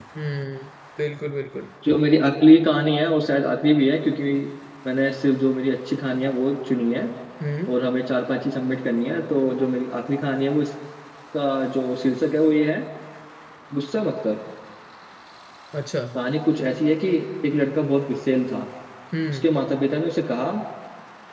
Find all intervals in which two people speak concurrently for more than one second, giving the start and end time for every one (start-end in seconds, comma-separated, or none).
none